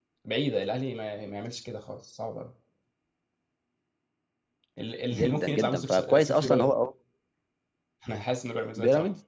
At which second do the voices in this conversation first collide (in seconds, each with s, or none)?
5.1 s